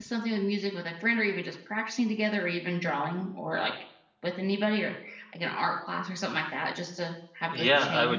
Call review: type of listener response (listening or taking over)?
taking over